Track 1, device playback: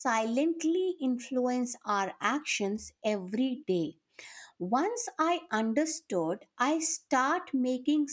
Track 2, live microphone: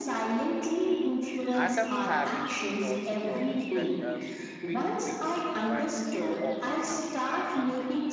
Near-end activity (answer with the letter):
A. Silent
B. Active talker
B